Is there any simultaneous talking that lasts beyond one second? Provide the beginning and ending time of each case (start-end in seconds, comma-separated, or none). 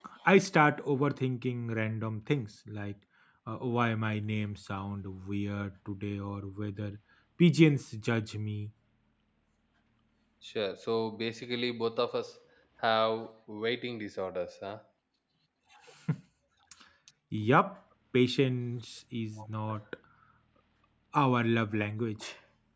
none